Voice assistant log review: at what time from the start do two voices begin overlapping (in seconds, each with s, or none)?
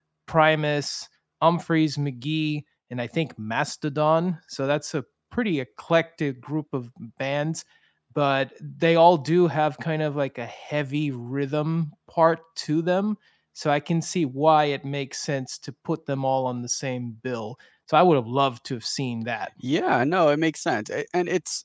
none